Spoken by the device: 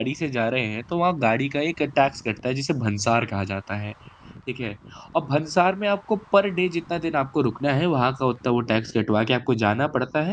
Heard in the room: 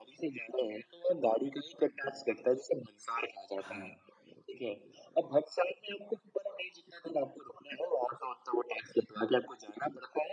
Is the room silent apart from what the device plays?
No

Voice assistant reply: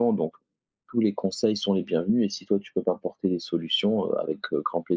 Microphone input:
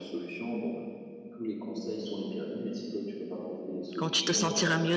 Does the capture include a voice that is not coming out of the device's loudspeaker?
Yes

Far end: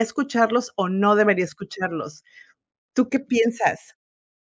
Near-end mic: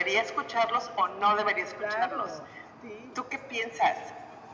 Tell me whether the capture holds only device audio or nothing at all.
No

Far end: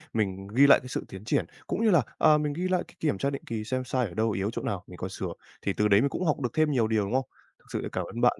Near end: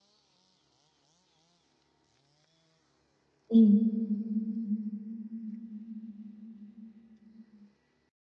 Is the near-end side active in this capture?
Yes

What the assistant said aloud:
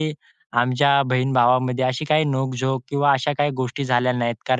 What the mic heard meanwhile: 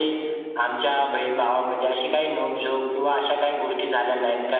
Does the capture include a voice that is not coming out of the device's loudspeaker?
No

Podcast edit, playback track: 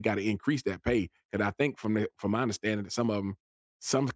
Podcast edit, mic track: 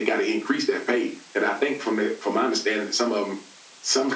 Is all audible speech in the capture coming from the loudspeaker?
Yes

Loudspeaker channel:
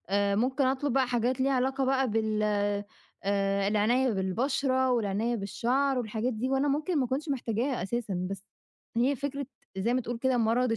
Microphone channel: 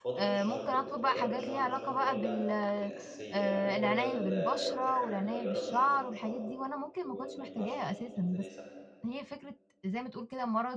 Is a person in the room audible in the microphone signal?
Yes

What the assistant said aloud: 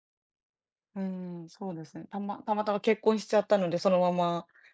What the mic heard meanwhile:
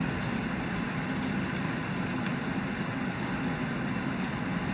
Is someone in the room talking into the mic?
No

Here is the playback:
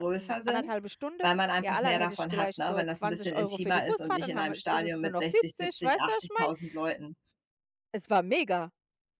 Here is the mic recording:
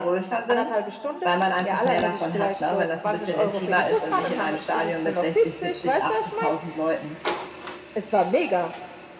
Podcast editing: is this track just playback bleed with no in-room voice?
Yes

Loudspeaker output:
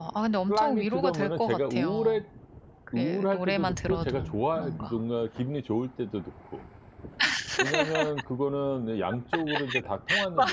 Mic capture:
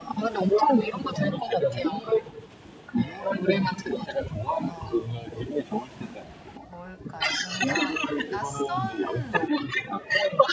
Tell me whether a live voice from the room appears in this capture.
Yes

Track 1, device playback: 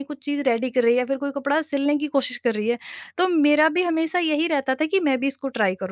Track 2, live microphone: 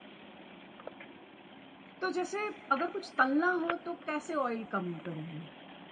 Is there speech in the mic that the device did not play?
Yes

